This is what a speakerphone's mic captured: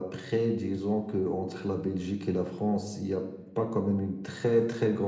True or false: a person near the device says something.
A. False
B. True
A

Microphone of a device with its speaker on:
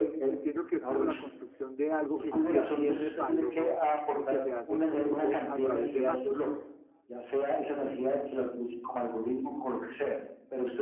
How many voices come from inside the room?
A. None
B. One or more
B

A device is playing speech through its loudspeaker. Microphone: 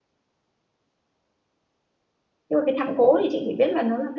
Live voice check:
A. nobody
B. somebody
B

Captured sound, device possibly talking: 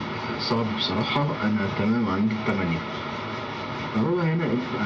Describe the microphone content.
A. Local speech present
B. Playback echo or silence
B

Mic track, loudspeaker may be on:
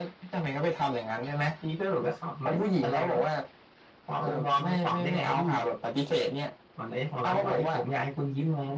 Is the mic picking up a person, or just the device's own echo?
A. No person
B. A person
A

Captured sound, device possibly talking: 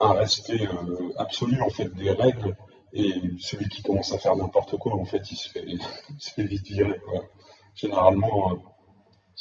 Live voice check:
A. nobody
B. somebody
A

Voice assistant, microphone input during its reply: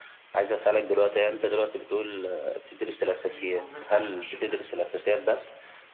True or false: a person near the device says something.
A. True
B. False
A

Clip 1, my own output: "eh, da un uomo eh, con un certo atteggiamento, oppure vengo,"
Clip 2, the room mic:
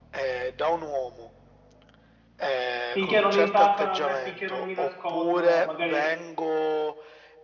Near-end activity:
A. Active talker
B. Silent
A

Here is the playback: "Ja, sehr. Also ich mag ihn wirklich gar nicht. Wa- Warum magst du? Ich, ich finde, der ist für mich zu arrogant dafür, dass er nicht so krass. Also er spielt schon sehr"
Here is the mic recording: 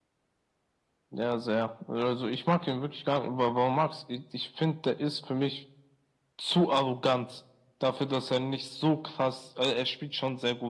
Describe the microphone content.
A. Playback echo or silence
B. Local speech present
A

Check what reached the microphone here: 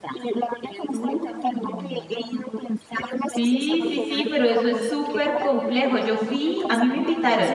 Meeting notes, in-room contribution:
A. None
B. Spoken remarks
B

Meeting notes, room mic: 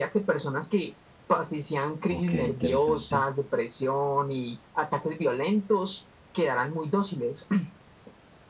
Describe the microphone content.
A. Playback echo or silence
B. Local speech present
B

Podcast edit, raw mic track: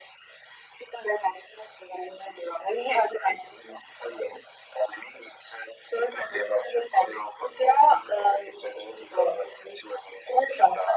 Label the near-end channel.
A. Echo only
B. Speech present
A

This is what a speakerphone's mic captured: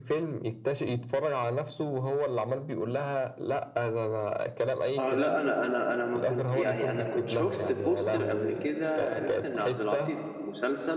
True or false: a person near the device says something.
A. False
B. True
B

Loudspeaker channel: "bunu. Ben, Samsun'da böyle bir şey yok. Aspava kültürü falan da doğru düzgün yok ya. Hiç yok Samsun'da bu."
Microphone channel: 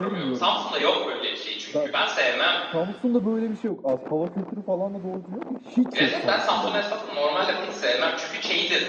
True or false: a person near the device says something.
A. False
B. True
B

